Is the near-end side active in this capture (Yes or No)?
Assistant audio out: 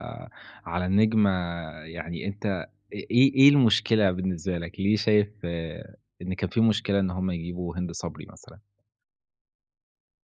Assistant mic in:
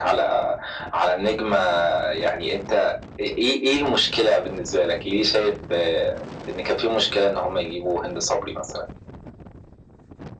No